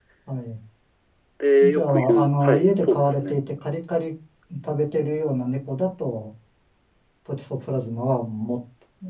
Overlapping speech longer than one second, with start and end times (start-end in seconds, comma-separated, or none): 1.6-3.3